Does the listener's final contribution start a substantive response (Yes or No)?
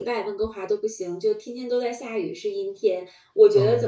No